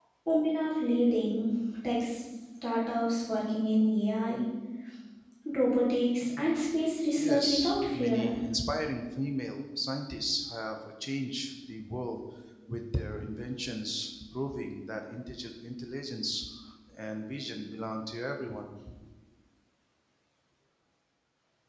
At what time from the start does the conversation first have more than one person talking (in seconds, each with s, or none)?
7.2 s